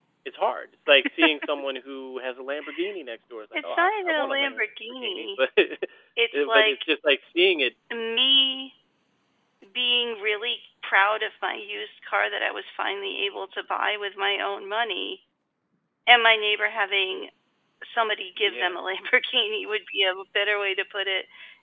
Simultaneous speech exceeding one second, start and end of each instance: 3.5-5.3

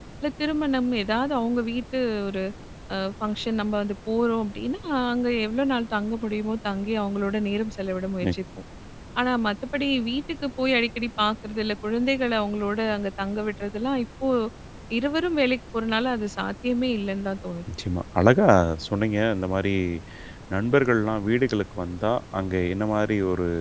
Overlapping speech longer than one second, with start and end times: none

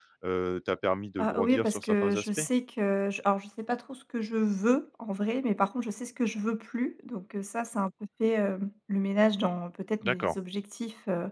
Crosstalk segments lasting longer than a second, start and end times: 1.2-2.4

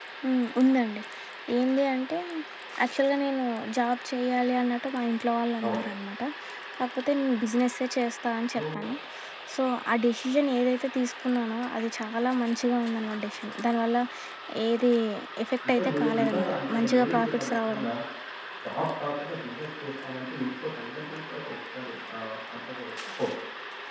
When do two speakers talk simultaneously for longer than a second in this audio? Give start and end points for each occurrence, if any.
15.8-17.9

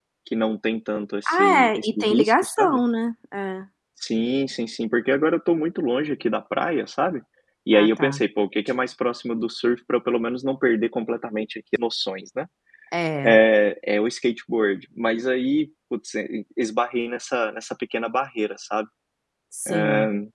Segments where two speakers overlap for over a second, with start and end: 1.3-2.8

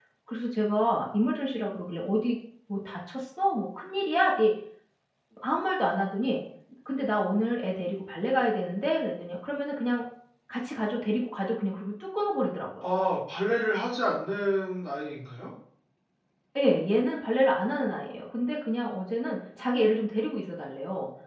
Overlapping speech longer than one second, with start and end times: none

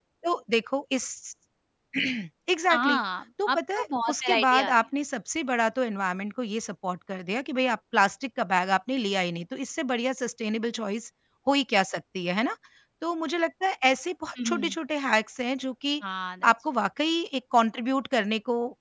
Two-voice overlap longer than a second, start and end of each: 3.5-4.7

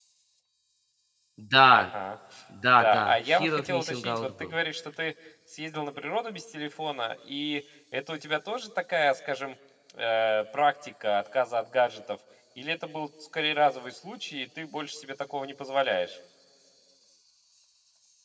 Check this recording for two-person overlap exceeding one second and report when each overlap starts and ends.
2.8-4.5

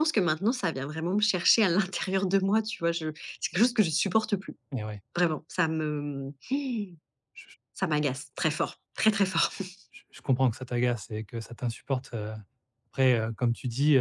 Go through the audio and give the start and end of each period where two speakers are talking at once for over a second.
none

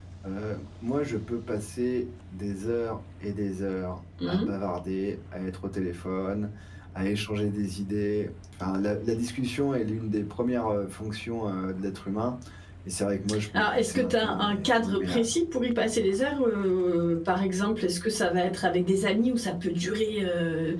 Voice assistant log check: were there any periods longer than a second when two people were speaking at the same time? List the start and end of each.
13.5-15.3

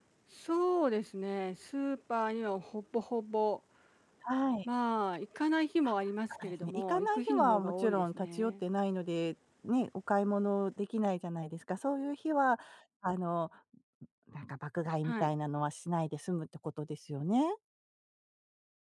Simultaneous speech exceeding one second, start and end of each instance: 6.5-8.5

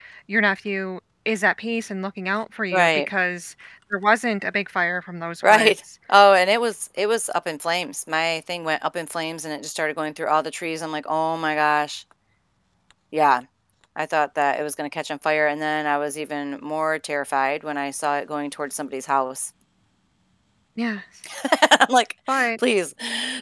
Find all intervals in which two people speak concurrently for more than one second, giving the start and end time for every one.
none

